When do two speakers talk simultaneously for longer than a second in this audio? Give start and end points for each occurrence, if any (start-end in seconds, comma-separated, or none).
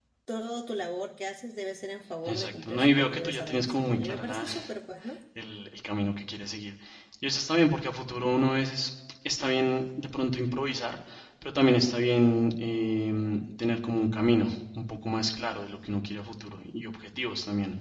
2.3-4.5